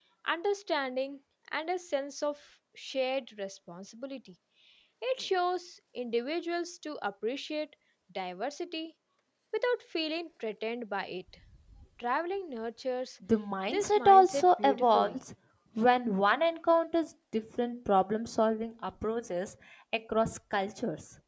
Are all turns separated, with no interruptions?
No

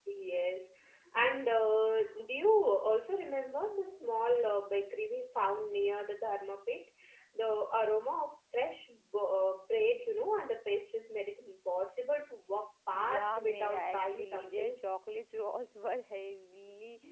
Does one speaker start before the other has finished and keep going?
Yes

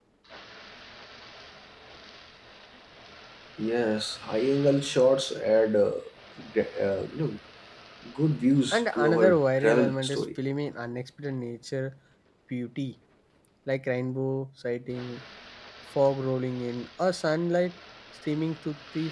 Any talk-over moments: Yes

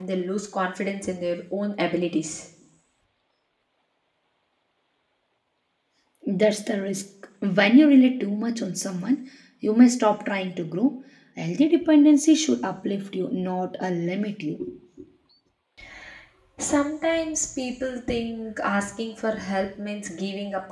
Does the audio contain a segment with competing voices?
No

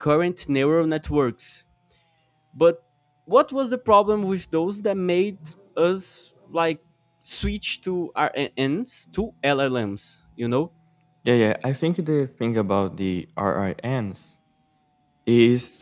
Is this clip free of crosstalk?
Yes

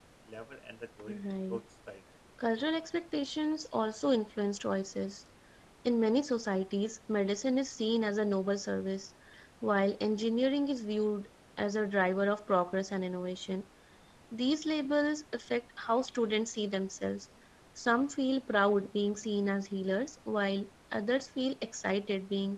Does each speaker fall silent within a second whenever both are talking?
Yes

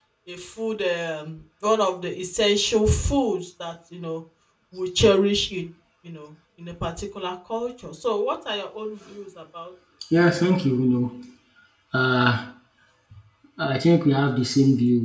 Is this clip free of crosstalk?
Yes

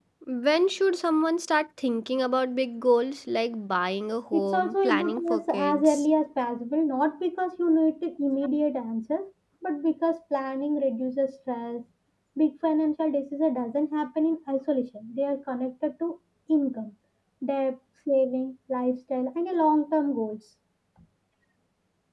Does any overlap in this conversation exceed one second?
Yes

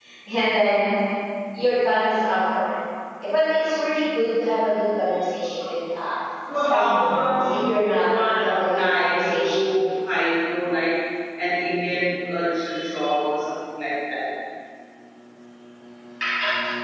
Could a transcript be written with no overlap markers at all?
No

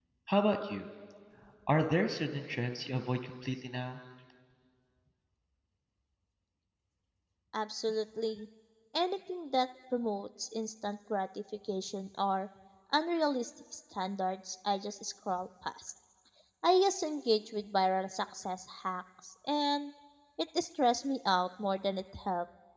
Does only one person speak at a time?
Yes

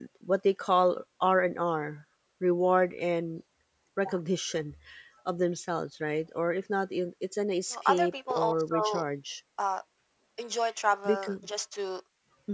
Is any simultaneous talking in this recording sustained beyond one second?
Yes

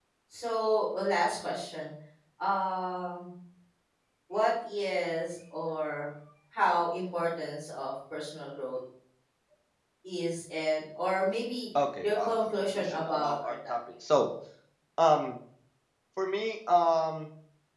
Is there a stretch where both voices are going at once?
Yes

